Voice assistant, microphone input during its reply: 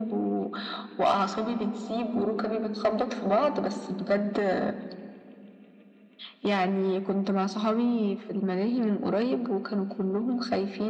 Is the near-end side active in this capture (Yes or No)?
No